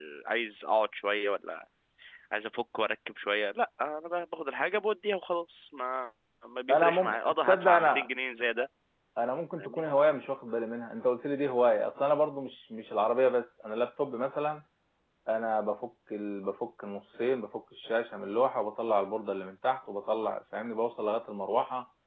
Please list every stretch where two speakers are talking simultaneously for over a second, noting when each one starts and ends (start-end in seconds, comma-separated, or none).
6.7-8.1